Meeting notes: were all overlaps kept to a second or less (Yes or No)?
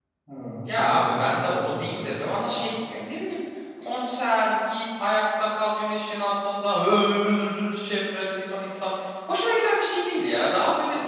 No